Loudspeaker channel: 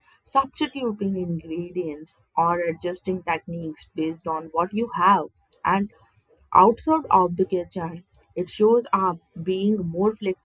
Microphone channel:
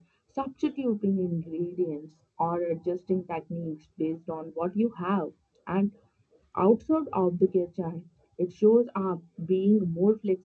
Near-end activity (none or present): none